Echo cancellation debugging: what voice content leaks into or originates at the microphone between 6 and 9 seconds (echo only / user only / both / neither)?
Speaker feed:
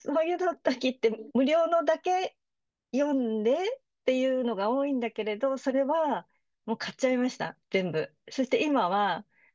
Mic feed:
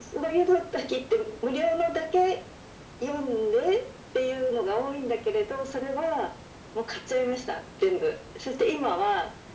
echo only